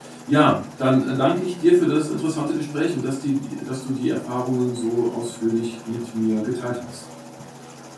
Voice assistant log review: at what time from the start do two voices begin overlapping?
none

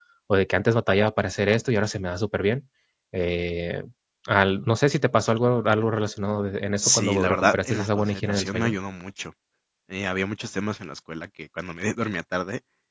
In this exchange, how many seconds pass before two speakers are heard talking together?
6.8 s

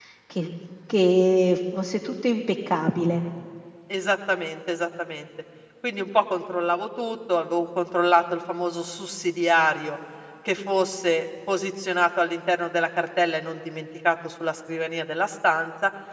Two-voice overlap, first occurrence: none

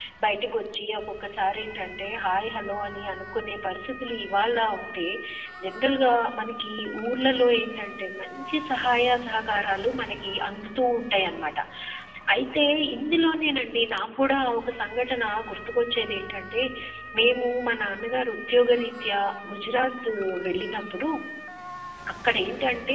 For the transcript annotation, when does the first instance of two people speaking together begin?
none

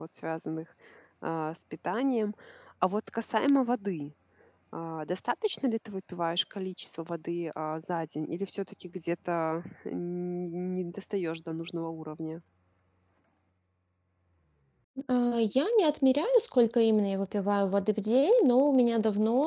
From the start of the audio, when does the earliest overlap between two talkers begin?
none

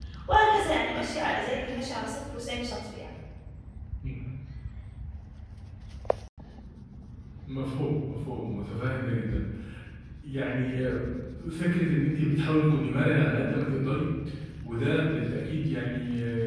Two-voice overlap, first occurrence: none

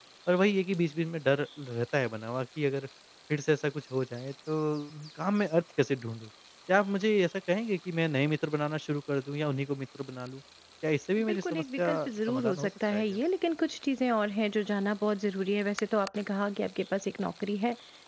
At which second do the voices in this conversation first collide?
11.2 s

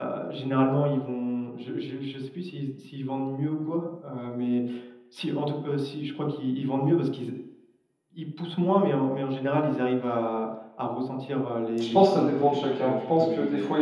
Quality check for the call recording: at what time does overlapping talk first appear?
11.8 s

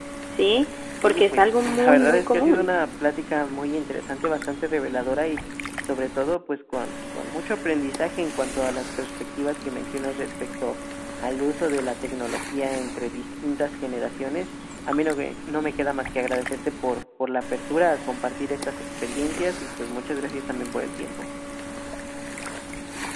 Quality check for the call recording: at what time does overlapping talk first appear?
1.0 s

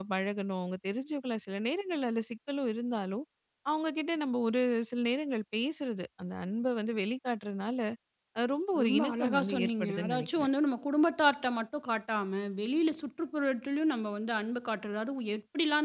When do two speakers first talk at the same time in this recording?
8.8 s

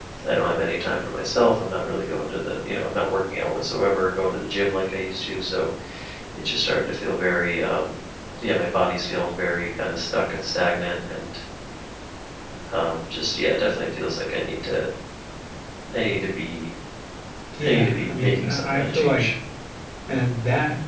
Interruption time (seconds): 17.6 s

